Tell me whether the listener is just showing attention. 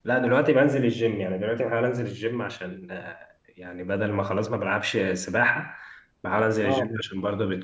Yes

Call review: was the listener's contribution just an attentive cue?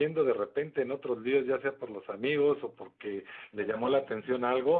Yes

